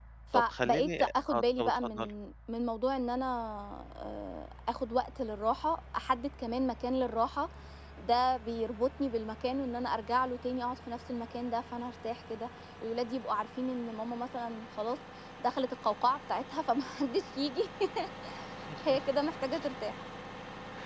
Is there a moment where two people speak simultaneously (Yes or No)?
Yes